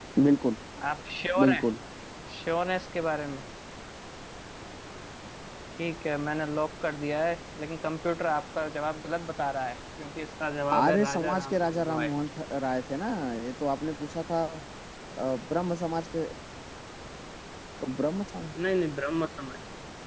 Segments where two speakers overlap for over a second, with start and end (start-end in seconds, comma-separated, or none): 10.7-12.1